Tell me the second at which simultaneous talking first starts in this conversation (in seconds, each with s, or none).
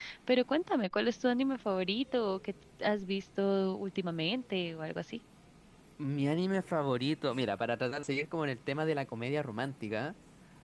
none